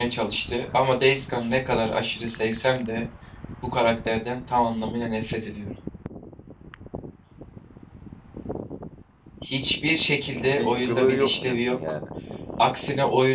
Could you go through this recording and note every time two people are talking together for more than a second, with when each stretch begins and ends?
10.6-11.8

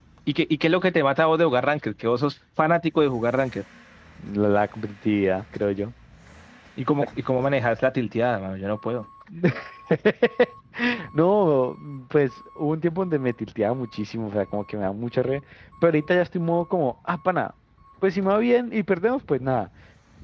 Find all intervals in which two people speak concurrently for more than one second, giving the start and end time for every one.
none

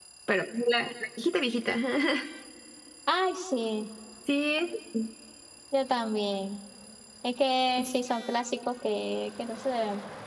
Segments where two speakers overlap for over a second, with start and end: none

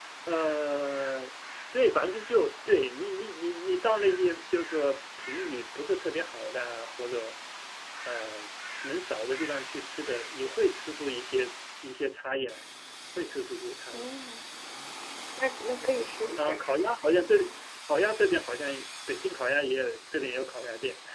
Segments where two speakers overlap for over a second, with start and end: none

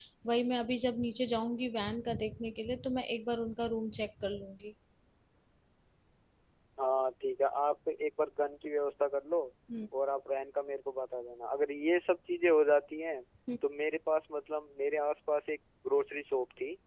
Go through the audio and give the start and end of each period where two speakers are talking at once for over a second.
none

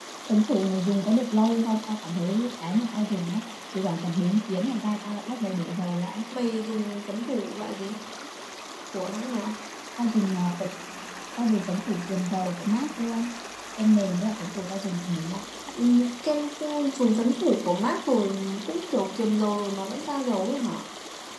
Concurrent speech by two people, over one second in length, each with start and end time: none

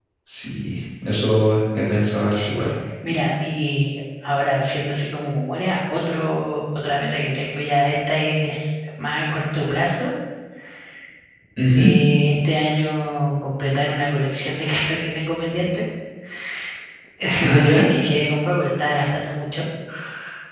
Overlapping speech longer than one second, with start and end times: none

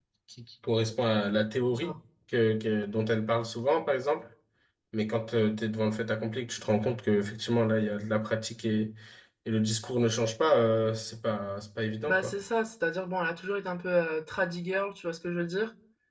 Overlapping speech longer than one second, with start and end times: none

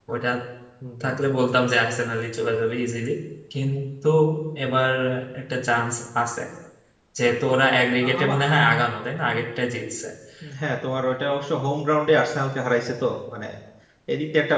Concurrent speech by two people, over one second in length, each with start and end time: none

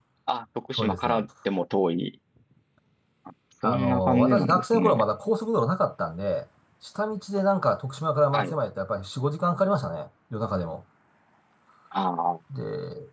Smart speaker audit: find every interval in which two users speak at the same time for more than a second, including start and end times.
3.6-5.0

